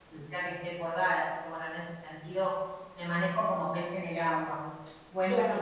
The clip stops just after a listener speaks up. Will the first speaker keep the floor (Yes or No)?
No